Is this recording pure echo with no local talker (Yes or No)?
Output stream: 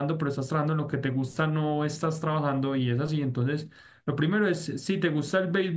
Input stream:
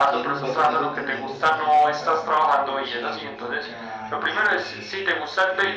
No